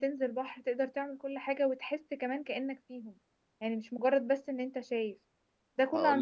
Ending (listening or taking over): listening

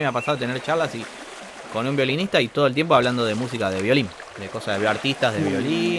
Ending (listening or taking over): listening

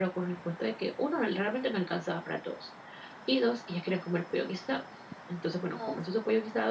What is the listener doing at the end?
listening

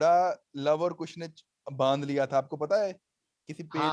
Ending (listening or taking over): taking over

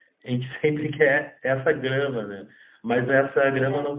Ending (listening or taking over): listening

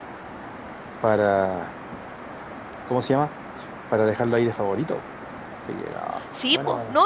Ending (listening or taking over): taking over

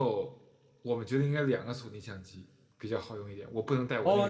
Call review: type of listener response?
taking over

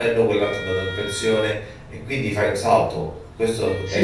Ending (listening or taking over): taking over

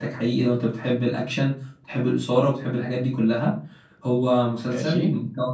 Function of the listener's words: listening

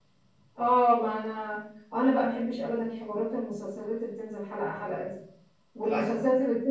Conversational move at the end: listening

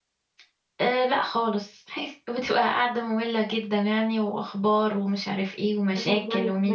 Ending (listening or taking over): taking over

